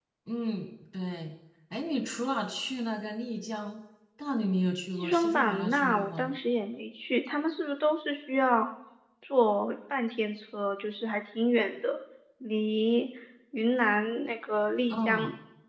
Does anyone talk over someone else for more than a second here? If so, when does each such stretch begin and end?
5.0-6.3

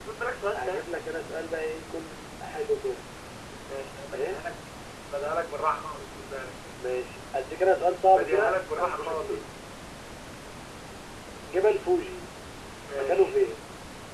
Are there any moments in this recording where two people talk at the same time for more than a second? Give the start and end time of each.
8.1-9.4

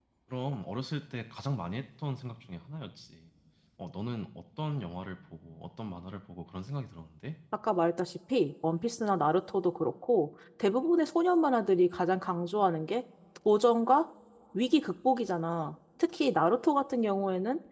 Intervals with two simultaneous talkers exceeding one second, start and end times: none

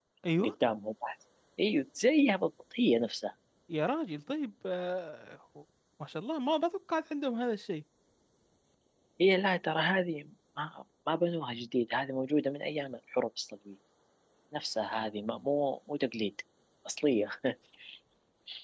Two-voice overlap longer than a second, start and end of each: none

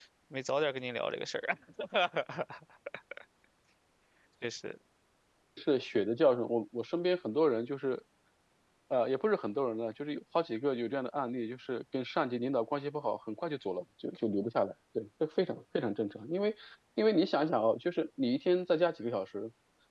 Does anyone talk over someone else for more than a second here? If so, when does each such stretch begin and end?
none

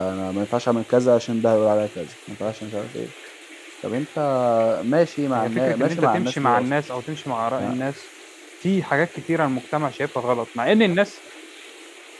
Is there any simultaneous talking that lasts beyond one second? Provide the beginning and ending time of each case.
5.3-6.7

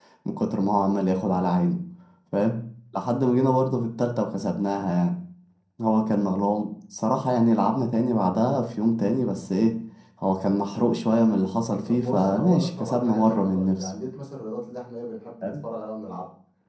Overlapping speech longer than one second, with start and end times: 11.6-13.9

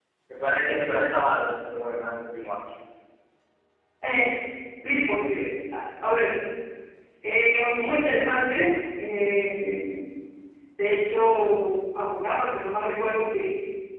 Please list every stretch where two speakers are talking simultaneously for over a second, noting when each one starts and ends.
none

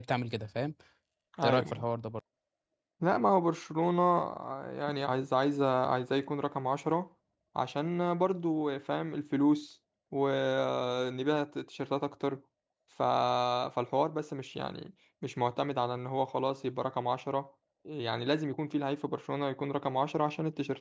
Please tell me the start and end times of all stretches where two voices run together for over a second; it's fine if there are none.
none

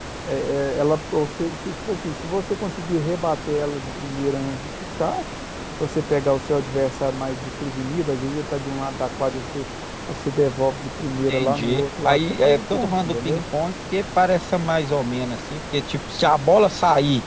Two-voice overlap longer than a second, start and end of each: 11.3-13.4

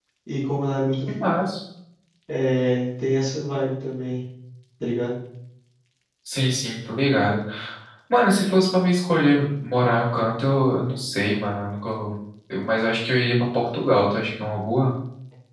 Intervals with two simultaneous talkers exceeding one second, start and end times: none

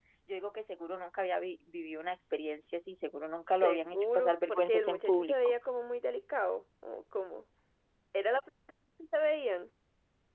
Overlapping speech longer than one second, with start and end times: 3.6-5.5

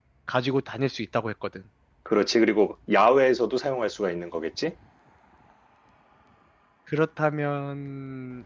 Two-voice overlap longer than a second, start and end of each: none

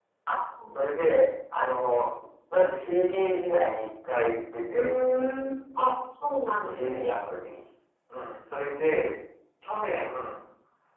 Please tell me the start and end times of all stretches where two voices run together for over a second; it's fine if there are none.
none

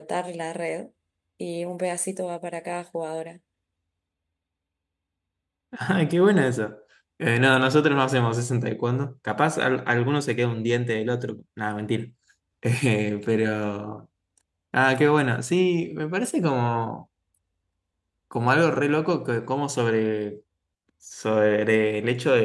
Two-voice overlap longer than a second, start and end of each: none

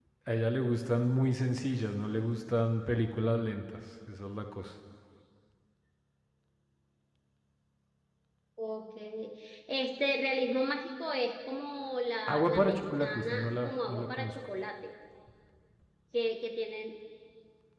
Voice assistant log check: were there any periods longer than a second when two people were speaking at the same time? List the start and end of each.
12.3-14.3

